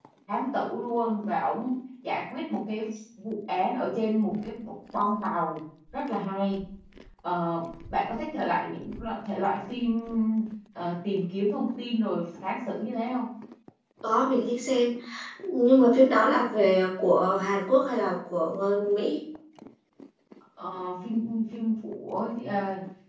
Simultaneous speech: No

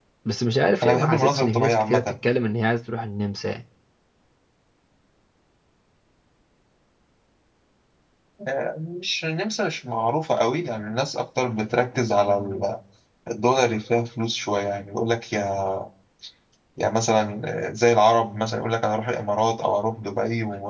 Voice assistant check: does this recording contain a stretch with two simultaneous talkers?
Yes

